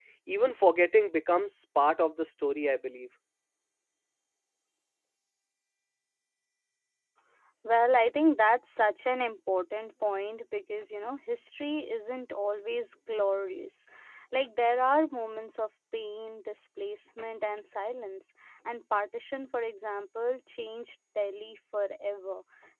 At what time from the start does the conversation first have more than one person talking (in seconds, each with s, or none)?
none